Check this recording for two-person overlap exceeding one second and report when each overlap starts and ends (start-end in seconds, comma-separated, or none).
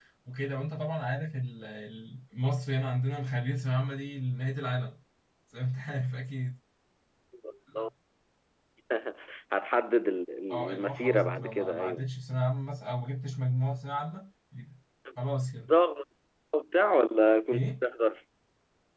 10.5-12.1